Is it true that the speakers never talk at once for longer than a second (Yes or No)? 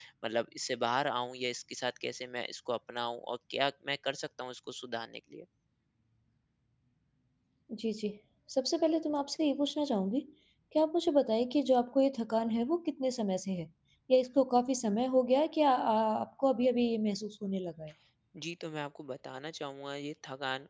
Yes